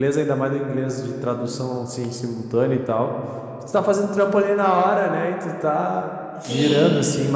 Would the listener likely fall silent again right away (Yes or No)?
Yes